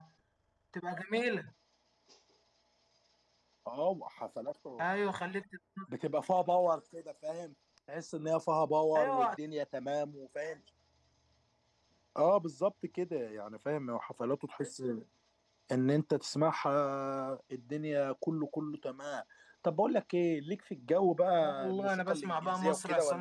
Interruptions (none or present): present